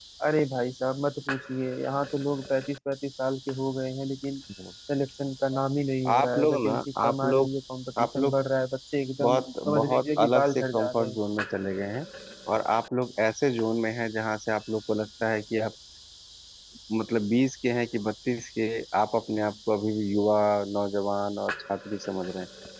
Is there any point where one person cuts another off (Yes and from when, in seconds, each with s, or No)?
Yes, from 6.1 s